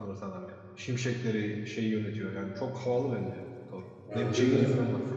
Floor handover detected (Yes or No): No